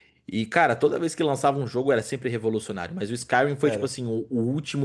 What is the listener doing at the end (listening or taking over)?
listening